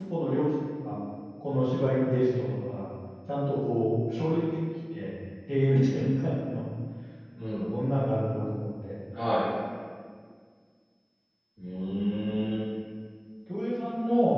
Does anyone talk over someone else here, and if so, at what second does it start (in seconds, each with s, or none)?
none